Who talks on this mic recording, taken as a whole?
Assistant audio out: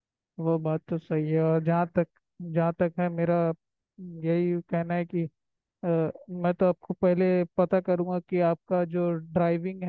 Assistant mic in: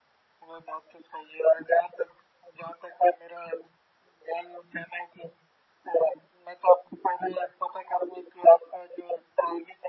echo only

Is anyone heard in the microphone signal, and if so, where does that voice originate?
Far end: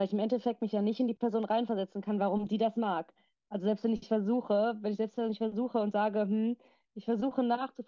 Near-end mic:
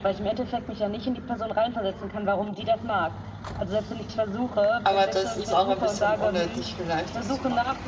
both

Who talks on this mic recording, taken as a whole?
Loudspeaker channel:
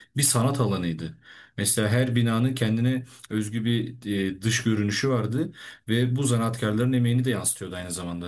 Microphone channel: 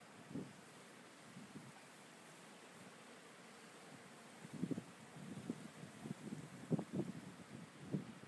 neither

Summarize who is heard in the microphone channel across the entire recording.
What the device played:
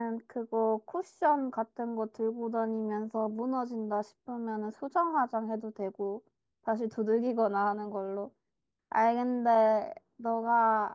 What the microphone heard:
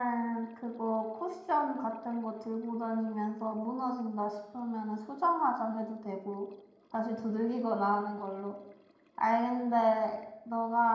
echo only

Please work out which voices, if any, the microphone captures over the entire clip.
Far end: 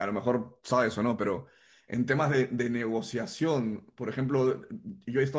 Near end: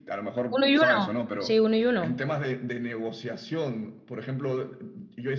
both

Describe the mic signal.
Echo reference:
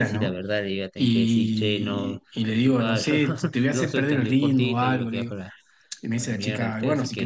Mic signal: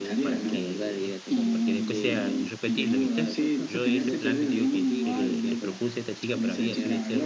both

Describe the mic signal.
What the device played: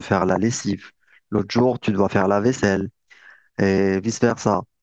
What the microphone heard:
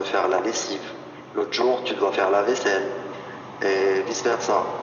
echo only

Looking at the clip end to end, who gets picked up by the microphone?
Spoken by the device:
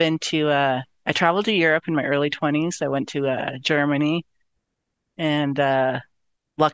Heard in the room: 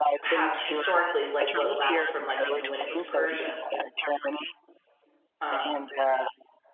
both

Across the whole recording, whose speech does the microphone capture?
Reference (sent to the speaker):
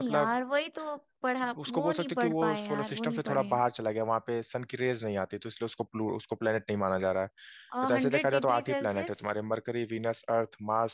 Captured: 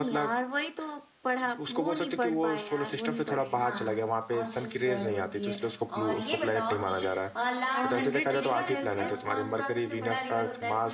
both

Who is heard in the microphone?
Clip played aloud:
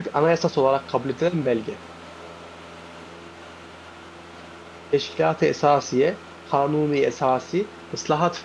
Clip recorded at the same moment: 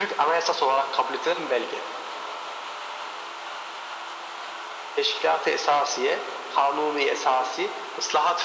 echo only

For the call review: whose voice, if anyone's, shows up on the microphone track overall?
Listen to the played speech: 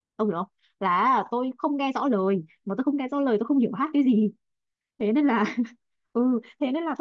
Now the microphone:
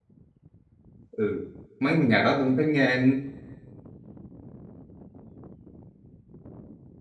user only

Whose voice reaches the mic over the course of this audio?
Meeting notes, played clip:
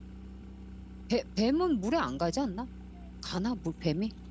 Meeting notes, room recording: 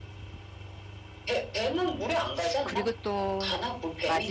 both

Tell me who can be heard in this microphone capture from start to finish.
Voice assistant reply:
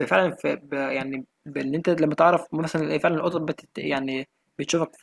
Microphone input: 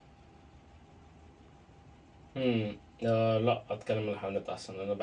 user only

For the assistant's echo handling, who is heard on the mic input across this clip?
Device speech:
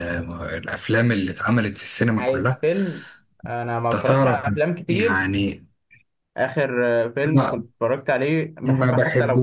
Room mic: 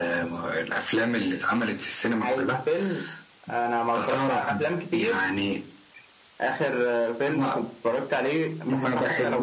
echo only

